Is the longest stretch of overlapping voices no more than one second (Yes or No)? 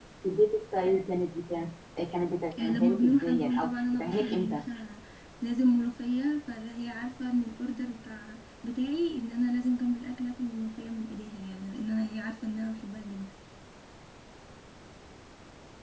No